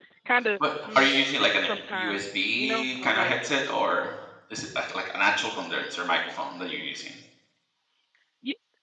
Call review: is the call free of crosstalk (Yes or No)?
No